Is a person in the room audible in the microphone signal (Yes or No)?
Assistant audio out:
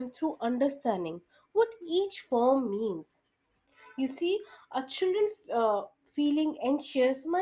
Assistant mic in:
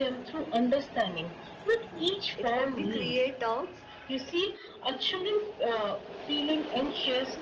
Yes